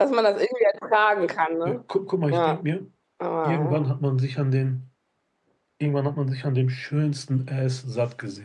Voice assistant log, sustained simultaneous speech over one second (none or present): none